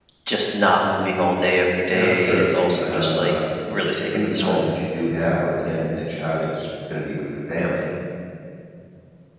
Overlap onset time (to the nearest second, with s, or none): 2 s